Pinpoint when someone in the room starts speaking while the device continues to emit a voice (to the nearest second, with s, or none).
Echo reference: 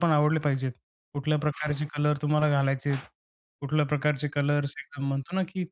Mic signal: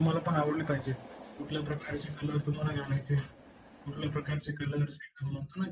none